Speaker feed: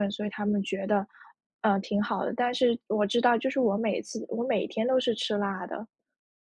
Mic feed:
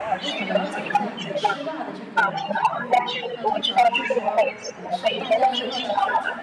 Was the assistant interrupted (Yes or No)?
Yes